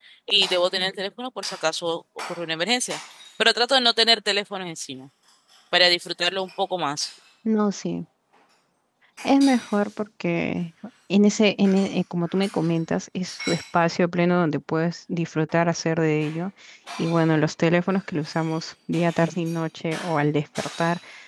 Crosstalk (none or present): none